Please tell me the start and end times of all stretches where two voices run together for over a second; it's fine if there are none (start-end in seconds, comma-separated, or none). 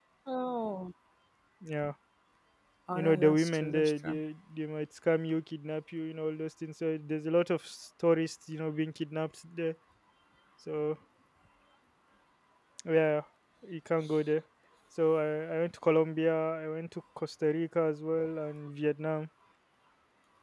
2.9-4.2